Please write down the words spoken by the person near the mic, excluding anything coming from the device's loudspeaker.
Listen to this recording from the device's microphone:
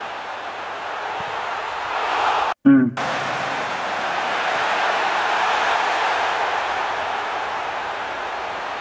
ừ,

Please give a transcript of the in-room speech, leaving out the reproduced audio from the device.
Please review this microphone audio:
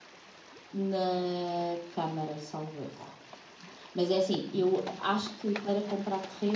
none

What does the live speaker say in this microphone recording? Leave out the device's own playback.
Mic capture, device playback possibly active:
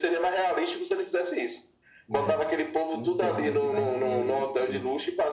É. Não sei como é que vai ser o futuro.

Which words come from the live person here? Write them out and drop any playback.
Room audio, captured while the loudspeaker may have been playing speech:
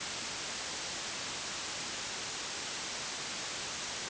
none

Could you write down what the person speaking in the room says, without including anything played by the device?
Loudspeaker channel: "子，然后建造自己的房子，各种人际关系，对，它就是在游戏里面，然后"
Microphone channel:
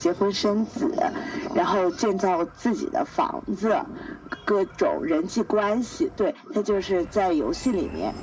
none

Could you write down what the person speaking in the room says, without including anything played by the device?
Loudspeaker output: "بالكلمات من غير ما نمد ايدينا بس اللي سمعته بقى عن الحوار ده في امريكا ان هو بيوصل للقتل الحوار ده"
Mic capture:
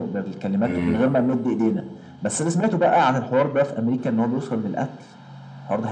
امم

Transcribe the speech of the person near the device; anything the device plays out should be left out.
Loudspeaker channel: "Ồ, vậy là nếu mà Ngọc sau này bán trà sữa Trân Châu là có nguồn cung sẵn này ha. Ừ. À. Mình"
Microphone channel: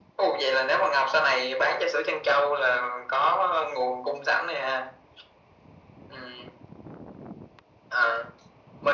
none

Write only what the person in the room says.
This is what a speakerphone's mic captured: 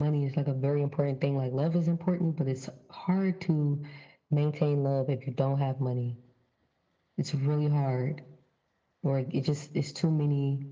none

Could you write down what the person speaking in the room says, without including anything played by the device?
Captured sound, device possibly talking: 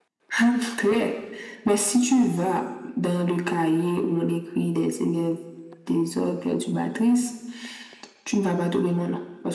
none

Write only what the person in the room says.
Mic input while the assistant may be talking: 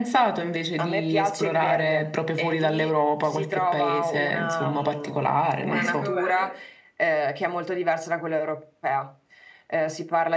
Ecco bene.

